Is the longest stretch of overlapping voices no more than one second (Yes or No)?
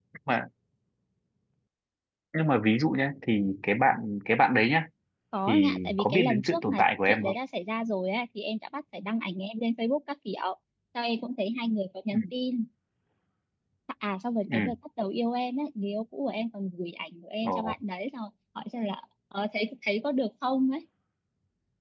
No